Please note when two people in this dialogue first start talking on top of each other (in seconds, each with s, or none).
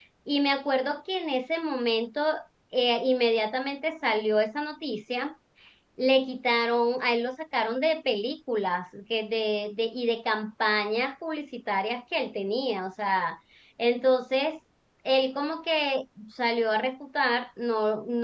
none